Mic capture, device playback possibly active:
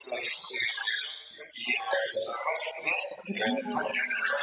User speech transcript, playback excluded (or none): du coup.